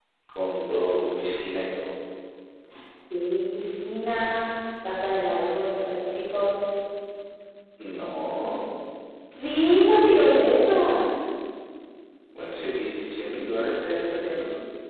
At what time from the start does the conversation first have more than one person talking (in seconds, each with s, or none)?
none